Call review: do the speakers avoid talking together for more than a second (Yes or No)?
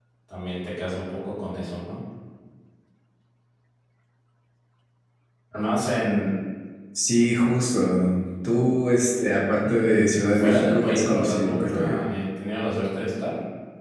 No